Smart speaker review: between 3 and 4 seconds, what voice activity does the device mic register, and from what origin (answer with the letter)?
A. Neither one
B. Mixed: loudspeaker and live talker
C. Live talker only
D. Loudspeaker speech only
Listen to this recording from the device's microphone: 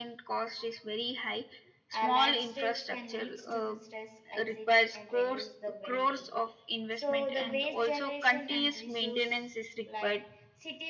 B